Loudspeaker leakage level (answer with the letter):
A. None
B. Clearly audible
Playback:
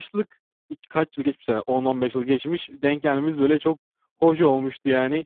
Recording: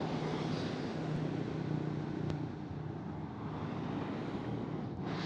A